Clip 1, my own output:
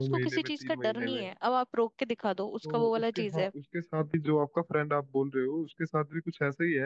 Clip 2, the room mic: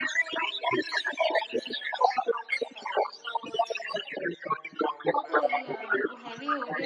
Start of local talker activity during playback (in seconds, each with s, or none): 5.1 s